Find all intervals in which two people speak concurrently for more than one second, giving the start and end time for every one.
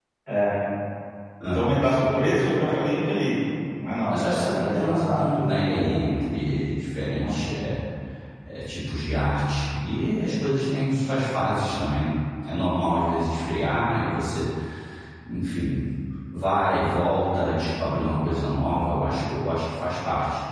4.1-5.9

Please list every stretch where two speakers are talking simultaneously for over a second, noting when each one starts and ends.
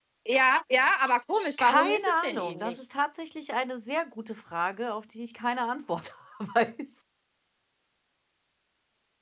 1.6-2.8

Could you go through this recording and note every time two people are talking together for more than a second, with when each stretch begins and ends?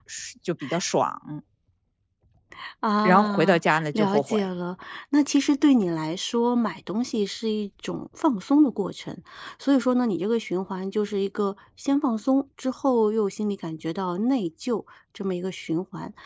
3.0-4.4

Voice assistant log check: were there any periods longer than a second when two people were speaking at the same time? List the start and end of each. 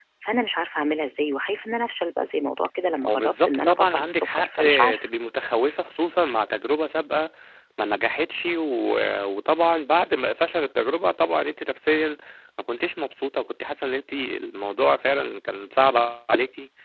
3.0-5.1

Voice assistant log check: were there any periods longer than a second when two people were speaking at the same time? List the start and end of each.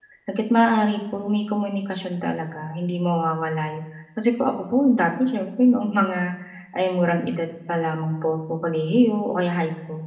none

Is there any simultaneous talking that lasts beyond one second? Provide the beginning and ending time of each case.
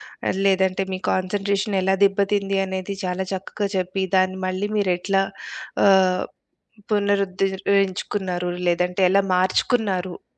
none

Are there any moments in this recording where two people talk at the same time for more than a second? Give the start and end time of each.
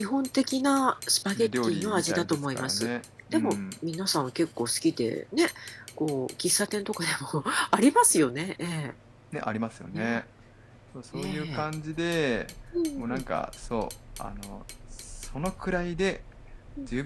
1.4-2.9

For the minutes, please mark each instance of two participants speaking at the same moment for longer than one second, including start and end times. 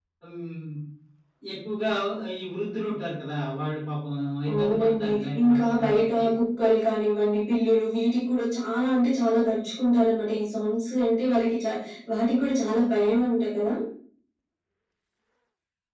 4.5-6.2

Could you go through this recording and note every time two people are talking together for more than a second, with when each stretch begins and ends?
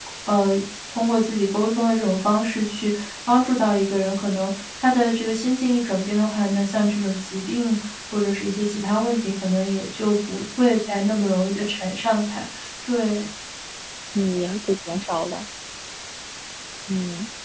none

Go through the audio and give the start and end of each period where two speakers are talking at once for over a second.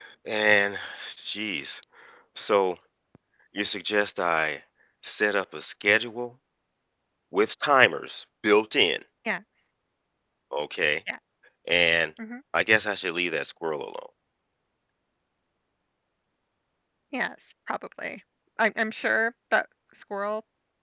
none

